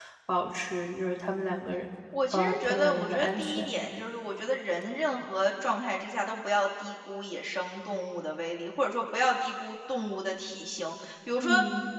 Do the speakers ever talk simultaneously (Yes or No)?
Yes